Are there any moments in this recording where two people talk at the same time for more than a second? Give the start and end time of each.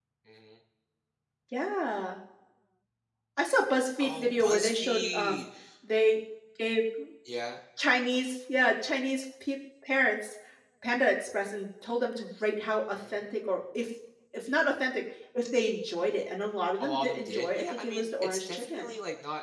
4.0-5.4, 16.8-18.9

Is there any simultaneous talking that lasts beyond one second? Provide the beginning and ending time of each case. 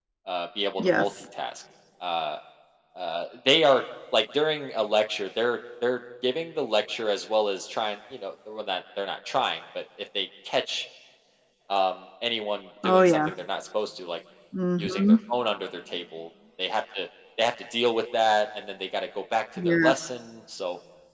none

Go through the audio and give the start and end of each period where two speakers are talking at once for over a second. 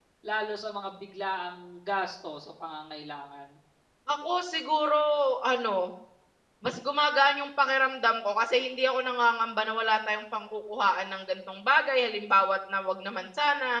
none

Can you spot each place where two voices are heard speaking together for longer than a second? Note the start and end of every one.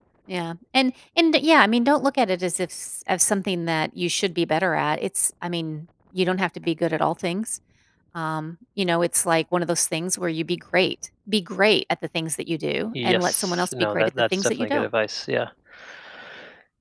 13.0-14.9

